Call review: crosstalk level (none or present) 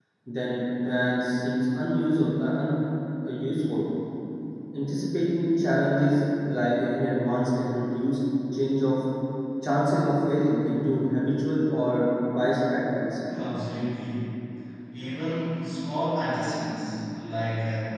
none